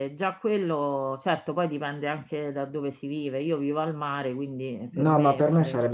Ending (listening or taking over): taking over